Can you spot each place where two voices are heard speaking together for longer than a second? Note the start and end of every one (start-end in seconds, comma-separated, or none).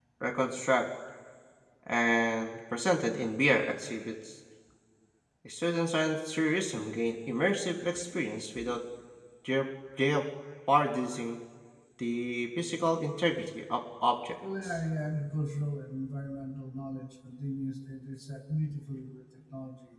none